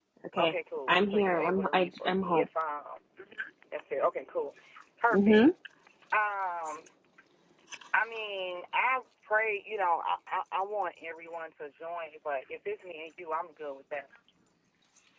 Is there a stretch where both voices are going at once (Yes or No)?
Yes